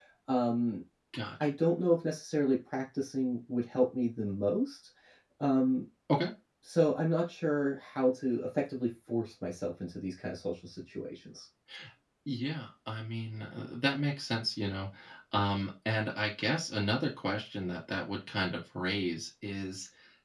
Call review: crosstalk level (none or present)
none